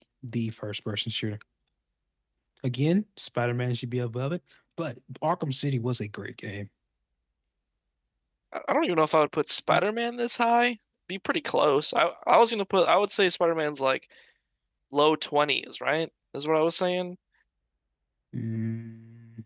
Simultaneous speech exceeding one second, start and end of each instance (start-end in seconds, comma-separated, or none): none